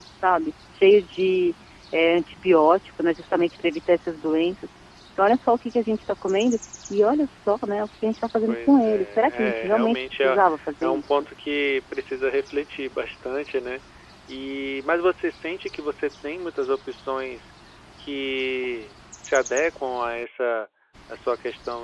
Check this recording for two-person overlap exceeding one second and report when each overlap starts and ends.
8.5-10.4

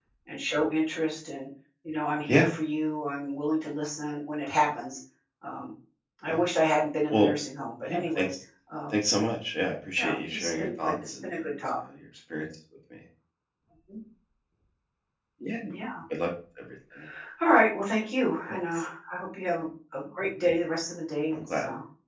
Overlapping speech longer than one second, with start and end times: 10.0-11.8

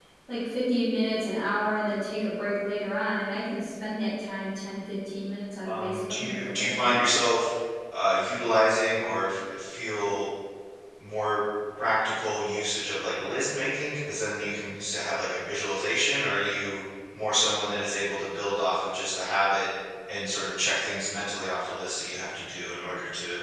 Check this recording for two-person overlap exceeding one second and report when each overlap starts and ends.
5.6-7.1

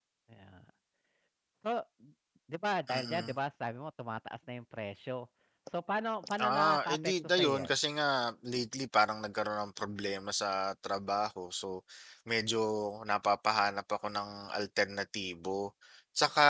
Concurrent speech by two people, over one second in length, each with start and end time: 6.5-7.7

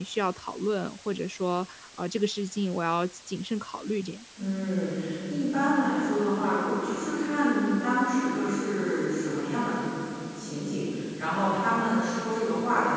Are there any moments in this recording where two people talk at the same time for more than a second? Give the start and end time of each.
none

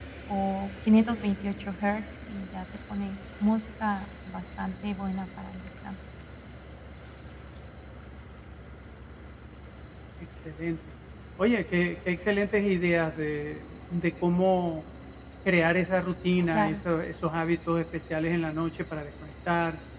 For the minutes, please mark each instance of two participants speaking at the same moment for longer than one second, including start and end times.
none

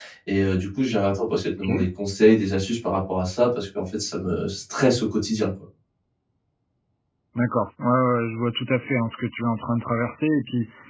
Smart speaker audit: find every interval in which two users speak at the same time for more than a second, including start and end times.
none

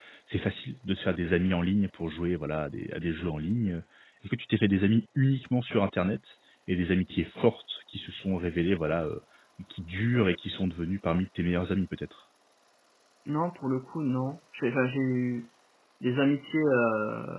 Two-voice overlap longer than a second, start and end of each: none

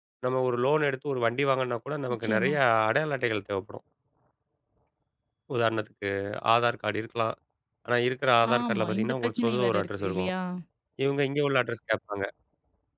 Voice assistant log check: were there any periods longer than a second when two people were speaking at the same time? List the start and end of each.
8.5-10.3

